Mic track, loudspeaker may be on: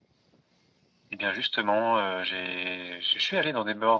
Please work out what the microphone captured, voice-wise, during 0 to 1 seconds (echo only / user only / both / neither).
neither